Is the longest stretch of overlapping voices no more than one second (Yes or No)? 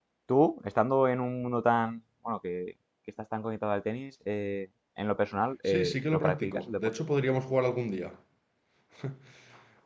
No